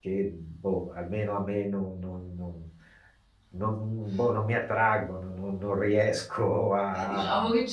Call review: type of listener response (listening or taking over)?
taking over